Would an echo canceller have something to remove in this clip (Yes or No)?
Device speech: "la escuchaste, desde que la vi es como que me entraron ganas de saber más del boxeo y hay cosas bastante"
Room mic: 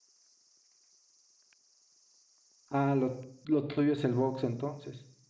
No